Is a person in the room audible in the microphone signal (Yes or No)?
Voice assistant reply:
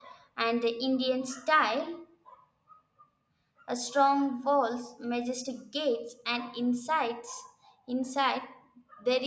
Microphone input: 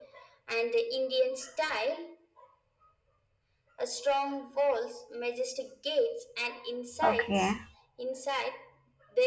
Yes